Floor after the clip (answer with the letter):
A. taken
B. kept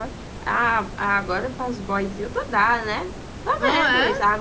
B